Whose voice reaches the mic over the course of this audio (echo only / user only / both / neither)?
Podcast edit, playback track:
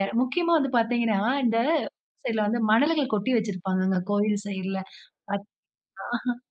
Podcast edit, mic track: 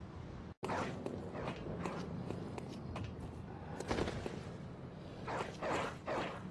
neither